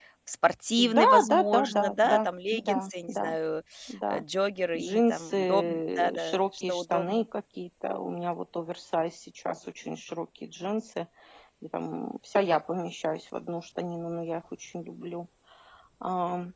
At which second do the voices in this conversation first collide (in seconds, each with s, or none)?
0.8 s